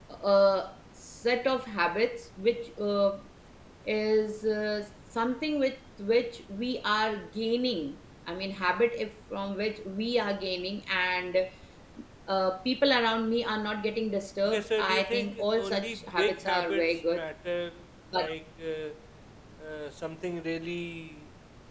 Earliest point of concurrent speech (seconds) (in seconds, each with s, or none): 14.4 s